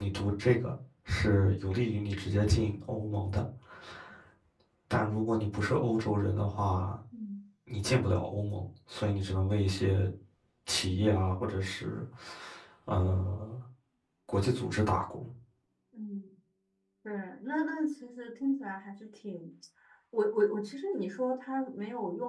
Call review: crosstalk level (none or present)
none